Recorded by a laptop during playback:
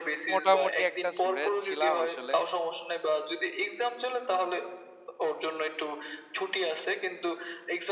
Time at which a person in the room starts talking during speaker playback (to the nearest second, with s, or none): 0 s